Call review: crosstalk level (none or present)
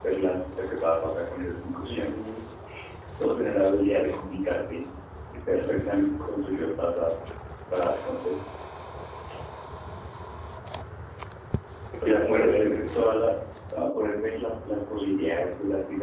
present